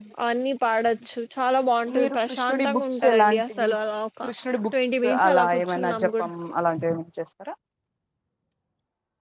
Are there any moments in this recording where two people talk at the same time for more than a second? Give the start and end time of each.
1.9-3.7, 4.8-6.2

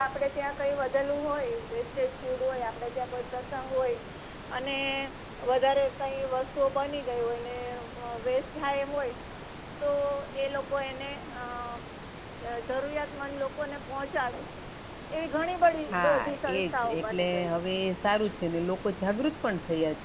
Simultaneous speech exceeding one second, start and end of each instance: 15.9-17.6

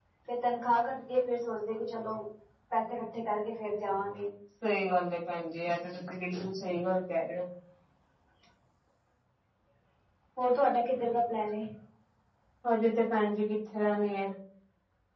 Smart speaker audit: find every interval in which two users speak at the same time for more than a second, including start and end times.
none

